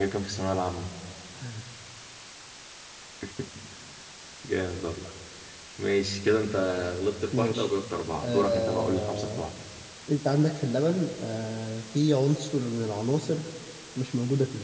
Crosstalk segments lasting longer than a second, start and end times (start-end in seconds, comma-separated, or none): 8.2-9.4